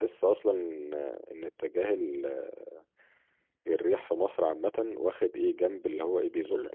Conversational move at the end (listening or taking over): taking over